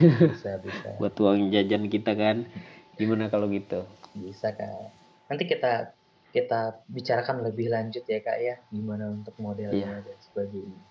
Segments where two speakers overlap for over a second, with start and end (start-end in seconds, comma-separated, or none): none